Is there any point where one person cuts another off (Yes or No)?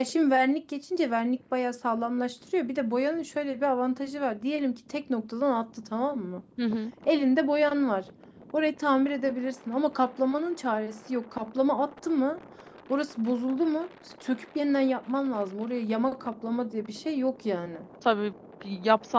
No